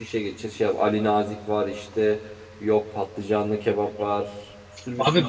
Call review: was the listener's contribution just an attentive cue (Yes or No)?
No